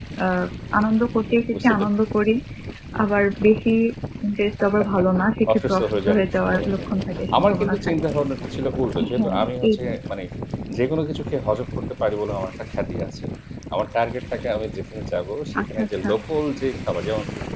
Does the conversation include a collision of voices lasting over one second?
Yes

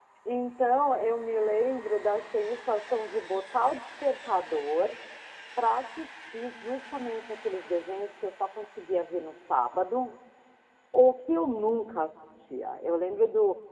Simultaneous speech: No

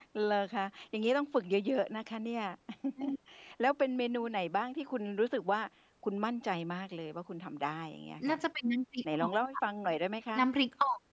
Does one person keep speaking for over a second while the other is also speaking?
No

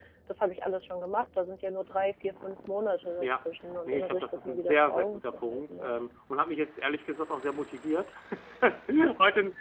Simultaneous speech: Yes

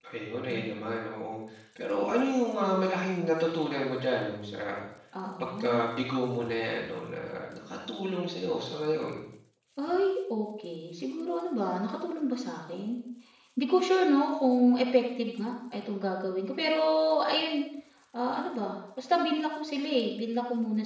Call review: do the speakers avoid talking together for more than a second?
Yes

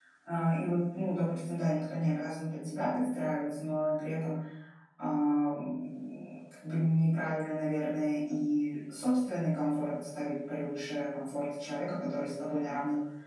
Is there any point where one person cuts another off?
No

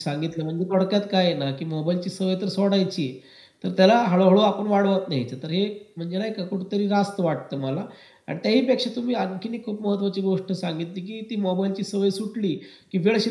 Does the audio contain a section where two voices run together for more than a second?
No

